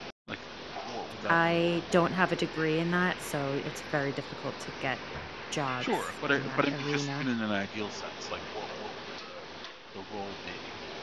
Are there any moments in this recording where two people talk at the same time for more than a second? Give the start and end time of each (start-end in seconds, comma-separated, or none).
5.8-7.3